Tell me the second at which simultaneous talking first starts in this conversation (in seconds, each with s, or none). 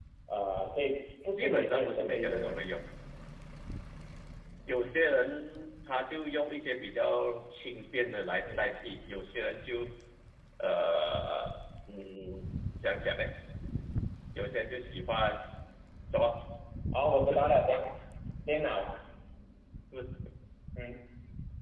1.3 s